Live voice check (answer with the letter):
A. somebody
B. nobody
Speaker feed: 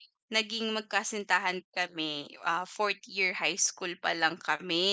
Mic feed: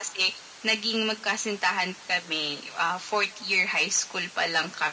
B